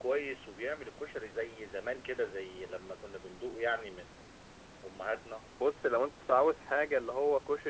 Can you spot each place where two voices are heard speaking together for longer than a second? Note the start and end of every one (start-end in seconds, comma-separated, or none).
none